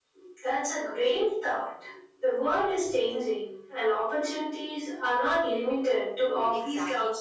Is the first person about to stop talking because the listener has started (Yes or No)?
Yes